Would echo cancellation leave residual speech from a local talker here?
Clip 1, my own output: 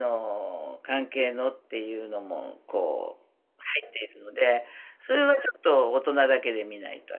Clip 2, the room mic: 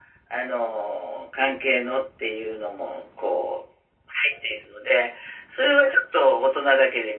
No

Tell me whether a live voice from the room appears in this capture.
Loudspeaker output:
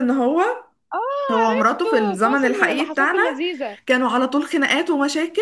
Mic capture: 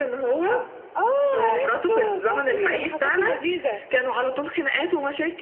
No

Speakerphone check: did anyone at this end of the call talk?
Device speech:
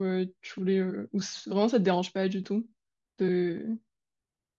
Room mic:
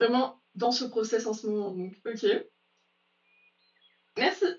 Yes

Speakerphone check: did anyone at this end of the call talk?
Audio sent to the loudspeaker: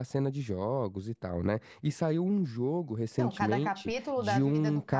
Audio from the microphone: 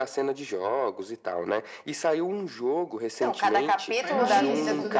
Yes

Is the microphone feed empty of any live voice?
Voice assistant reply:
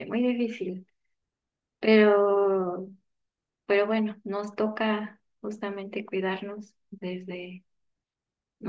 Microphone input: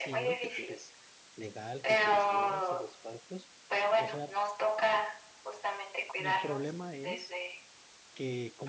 No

